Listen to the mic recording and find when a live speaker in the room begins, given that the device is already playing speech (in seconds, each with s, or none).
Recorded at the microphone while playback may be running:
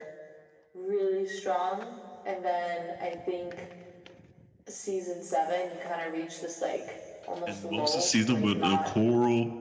7.5 s